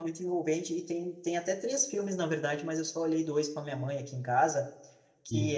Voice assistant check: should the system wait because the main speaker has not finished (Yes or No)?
Yes